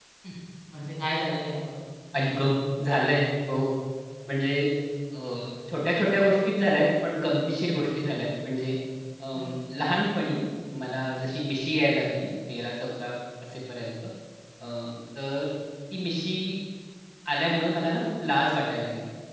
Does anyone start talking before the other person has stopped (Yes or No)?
No